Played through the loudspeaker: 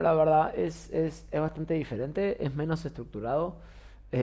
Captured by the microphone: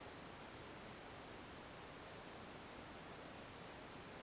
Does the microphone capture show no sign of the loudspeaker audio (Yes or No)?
Yes